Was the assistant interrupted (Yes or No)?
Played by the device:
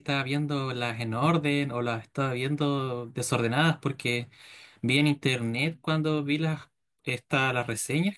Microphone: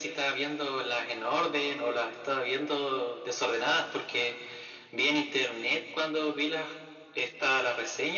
No